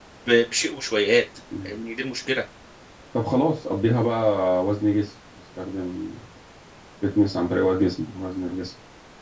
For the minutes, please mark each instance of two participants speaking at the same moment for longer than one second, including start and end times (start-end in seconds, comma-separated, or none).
none